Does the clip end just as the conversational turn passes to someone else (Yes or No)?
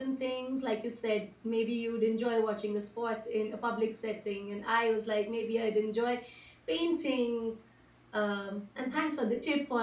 No